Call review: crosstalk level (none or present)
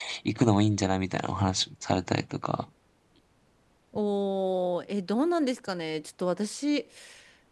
none